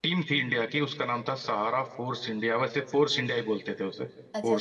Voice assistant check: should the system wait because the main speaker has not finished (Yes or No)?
No